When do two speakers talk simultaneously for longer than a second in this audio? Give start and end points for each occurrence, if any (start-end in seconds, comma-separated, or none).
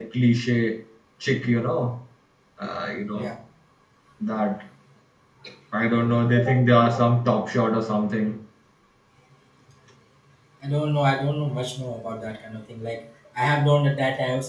none